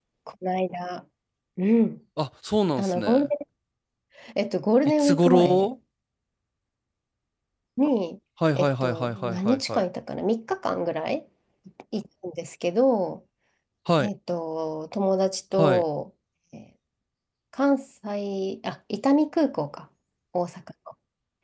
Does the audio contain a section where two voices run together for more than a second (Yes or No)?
Yes